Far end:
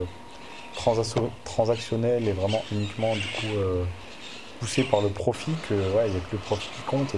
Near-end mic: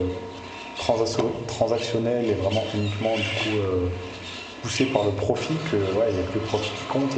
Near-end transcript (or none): none